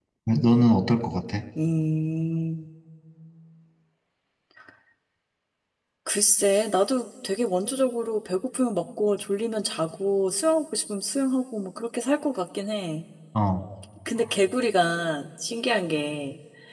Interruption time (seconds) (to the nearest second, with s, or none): none